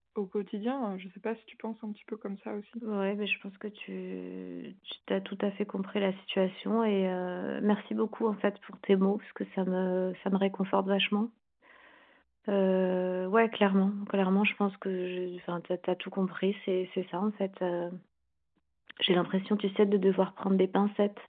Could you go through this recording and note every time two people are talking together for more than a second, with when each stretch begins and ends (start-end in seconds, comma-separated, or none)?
none